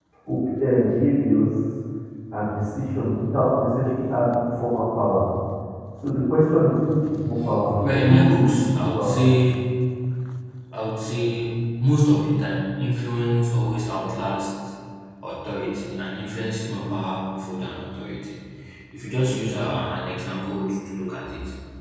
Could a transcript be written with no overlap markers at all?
No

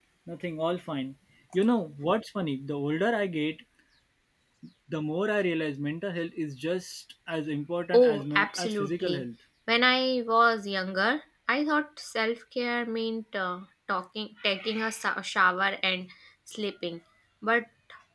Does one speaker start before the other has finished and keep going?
Yes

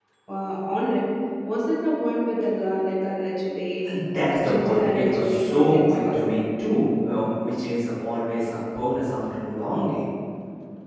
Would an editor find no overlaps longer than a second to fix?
No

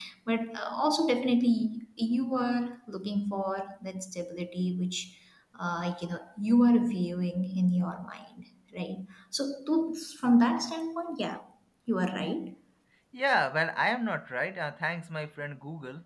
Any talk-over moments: No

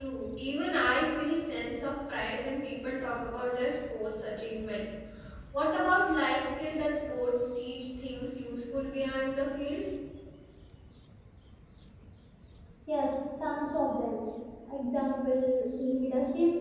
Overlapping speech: No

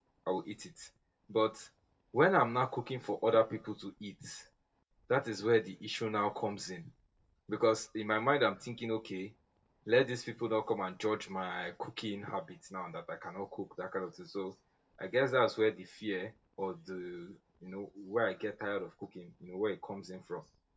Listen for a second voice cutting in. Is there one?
No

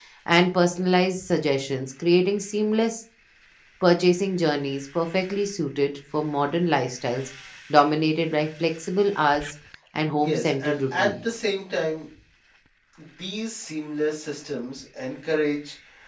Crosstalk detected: Yes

